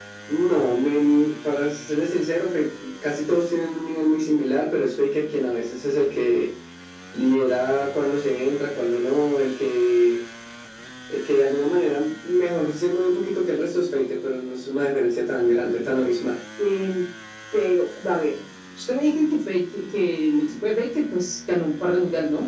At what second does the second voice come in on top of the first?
none

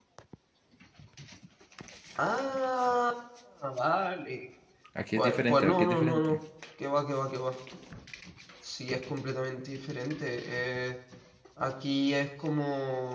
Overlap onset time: 5.2 s

